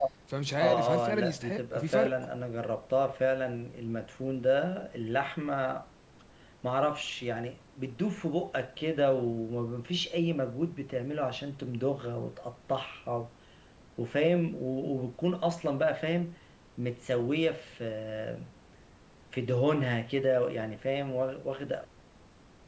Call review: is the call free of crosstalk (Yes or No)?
No